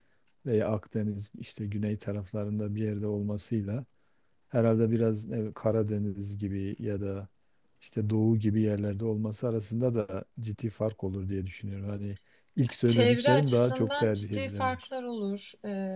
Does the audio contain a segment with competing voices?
Yes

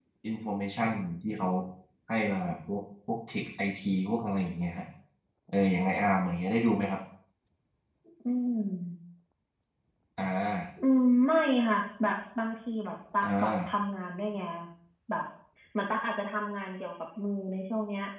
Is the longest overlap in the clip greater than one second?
No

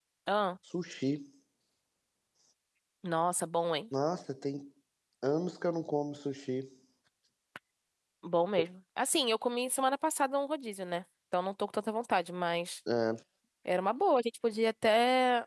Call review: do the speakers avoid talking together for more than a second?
Yes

